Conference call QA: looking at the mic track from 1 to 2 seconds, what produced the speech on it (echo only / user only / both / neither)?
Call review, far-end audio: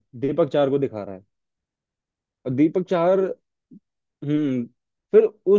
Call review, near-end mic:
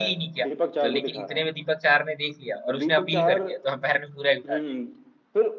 both